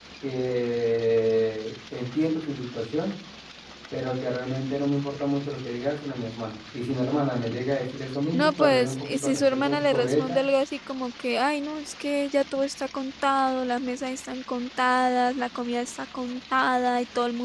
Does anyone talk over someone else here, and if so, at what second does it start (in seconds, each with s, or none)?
8.3 s